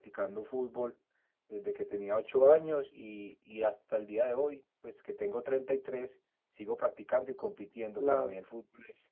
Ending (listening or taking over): listening